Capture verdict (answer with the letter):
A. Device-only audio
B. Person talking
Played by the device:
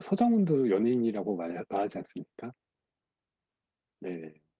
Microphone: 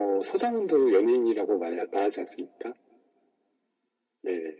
A